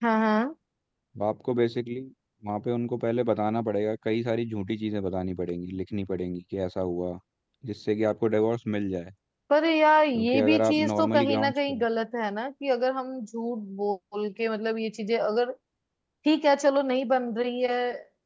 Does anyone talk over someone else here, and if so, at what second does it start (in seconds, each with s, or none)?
10.2 s